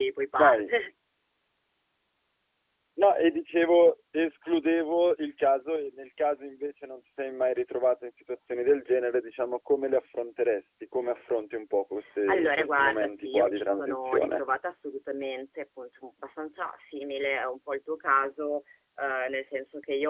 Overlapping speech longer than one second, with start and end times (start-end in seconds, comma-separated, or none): 12.3-14.4